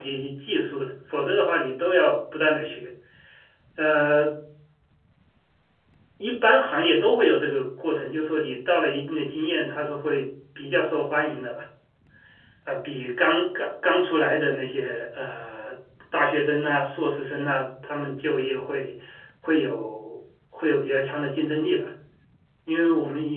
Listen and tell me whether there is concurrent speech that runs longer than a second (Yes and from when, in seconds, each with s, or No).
No